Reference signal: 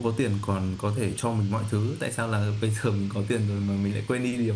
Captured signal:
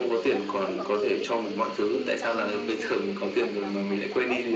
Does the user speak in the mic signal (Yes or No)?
Yes